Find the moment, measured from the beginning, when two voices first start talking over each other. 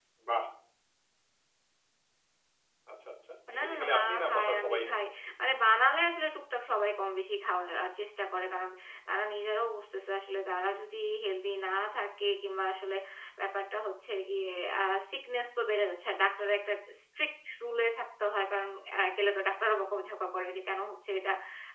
3.6 s

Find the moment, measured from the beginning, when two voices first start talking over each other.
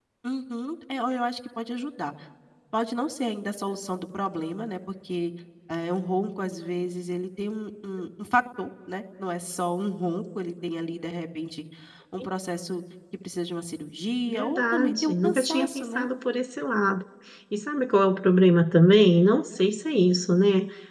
14.3 s

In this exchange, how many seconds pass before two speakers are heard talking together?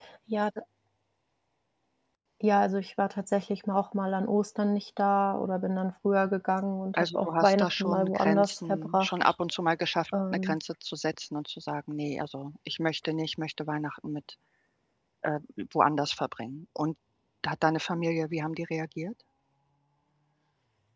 7.0 s

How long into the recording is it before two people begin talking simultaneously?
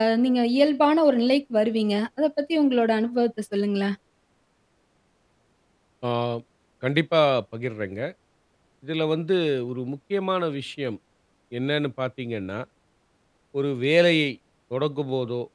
none

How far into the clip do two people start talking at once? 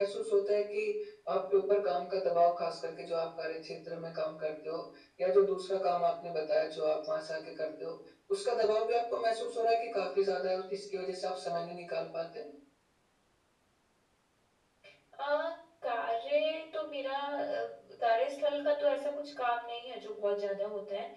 none

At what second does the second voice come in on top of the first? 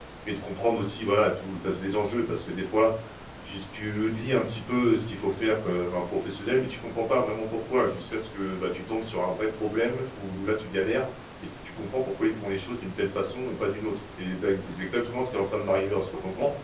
none

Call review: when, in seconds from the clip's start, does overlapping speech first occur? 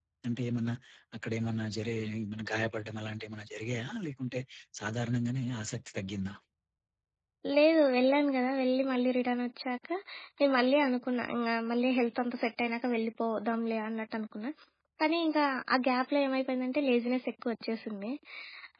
none

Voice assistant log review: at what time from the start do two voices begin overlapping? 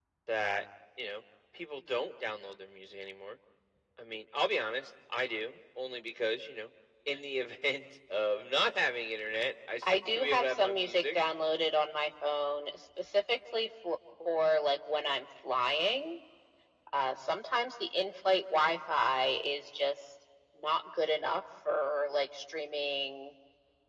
9.8 s

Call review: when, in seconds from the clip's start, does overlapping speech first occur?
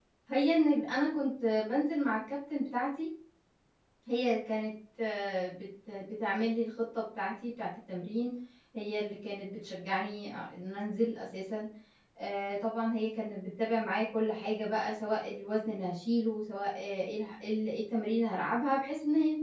none

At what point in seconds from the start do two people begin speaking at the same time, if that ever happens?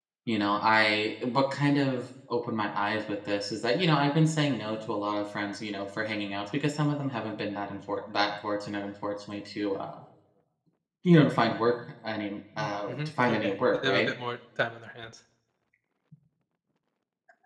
12.6 s

